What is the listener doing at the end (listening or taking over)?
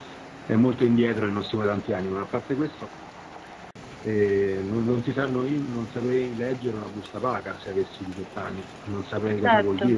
listening